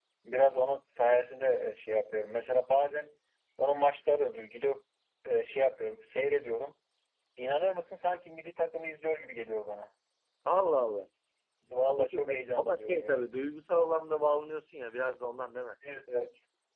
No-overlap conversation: No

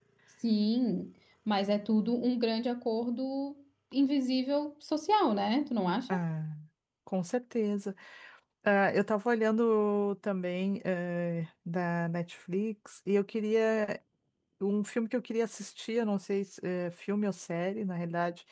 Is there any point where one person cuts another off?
No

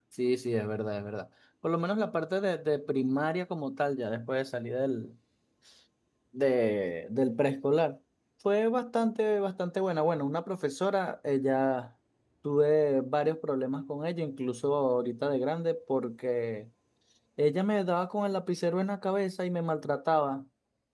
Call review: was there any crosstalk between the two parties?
No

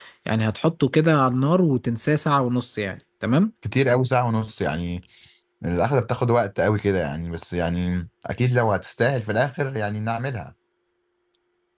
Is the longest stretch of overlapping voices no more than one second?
Yes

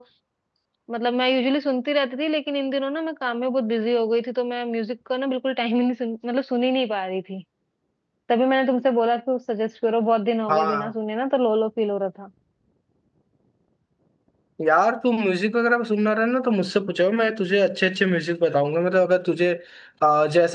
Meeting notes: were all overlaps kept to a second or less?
Yes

